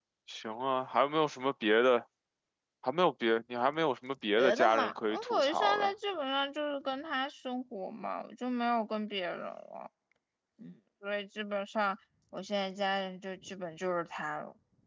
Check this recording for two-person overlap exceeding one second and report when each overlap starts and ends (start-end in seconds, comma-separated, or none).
4.4-5.9